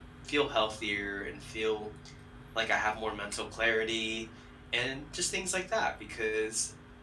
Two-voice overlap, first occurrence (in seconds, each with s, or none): none